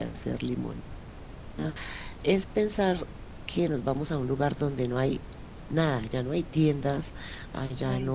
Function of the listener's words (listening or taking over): listening